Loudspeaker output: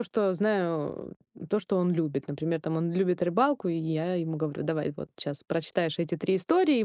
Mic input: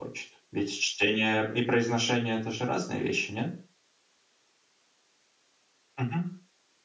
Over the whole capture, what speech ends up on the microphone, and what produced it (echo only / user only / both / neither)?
user only